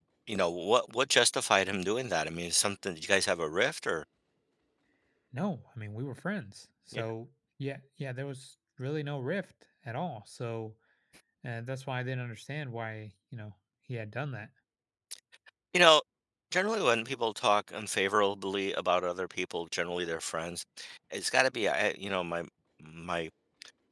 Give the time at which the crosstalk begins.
none

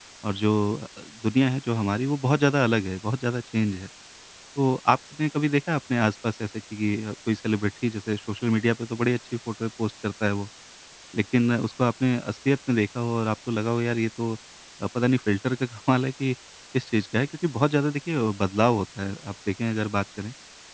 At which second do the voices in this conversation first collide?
none

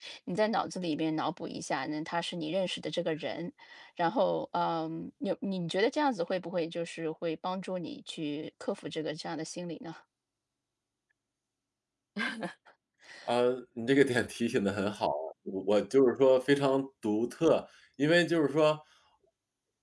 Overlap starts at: none

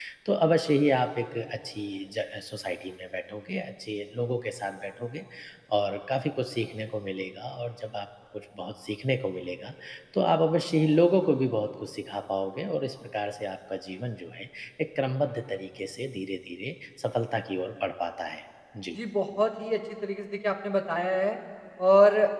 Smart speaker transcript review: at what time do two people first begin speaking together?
none

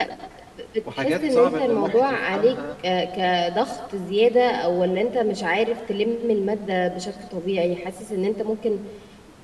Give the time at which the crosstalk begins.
1 s

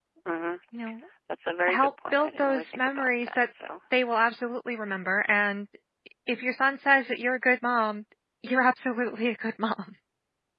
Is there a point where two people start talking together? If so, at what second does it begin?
2 s

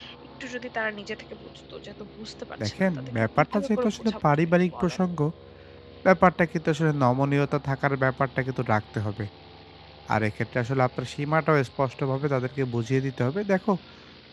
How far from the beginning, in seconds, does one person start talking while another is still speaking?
3 s

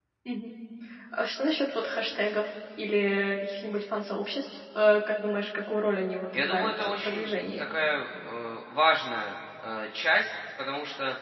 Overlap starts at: 6 s

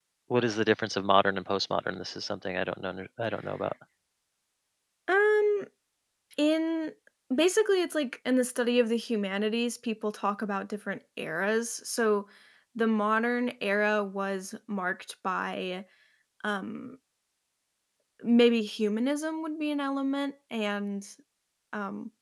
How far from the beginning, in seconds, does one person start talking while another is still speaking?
none

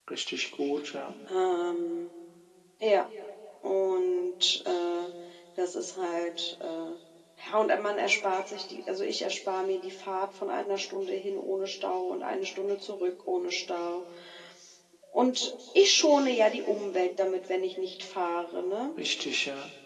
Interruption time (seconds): none

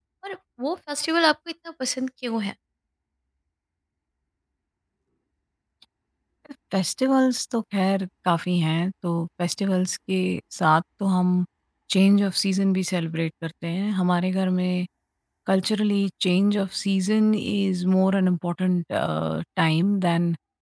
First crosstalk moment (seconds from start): none

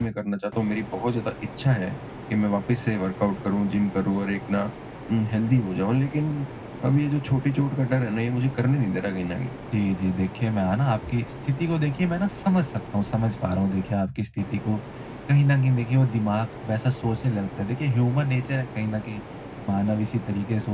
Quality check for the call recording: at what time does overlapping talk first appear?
none

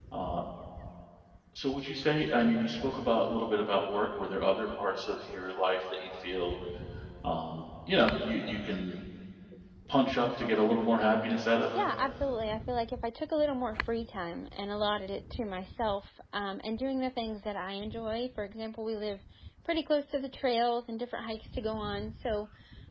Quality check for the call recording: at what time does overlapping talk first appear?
none

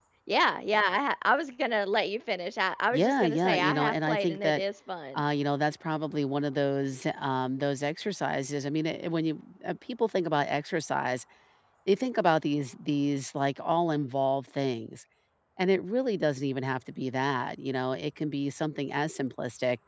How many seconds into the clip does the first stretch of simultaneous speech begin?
3 s

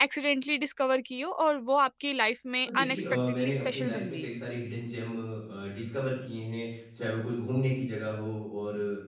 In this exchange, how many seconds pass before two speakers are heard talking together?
3 s

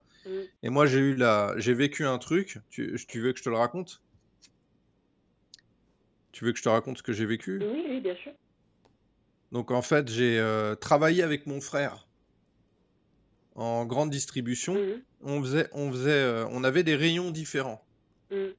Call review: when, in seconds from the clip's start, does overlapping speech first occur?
none

